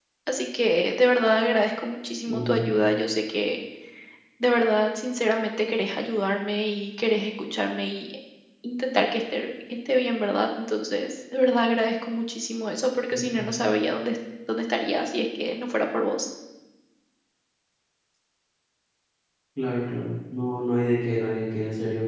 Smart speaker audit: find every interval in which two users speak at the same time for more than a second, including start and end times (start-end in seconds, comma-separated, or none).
none